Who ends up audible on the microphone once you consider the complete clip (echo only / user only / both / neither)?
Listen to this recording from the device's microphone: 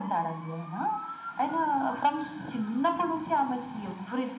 echo only